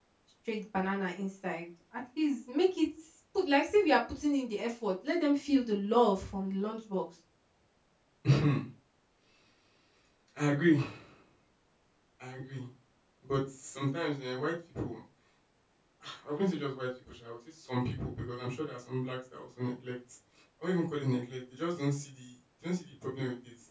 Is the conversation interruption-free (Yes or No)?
Yes